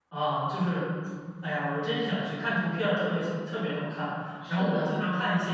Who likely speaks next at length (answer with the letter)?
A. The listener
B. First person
B